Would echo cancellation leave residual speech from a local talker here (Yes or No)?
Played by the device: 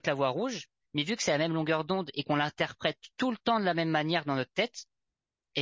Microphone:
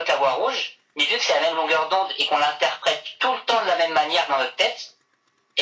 No